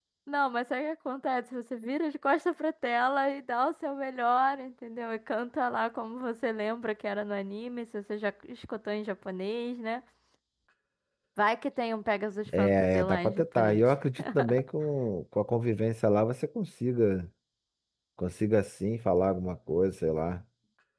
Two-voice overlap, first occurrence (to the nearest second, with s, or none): 13 s